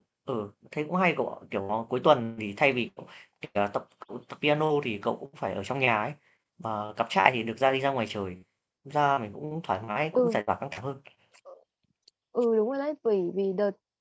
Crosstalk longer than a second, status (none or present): none